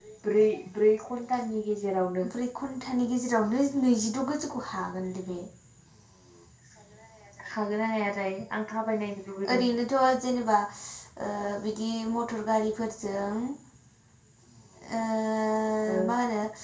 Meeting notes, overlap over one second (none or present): none